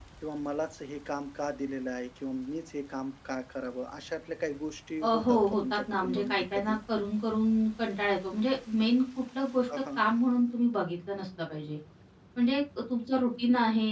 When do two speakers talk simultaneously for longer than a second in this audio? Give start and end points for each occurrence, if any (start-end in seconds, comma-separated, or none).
5.0-6.8